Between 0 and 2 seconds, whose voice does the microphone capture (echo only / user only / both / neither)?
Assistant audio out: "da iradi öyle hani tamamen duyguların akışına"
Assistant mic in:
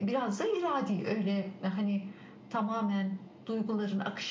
echo only